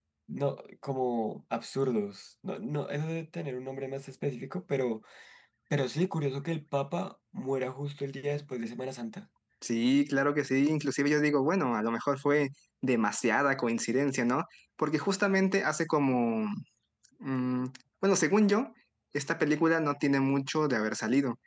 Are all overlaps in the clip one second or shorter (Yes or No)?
Yes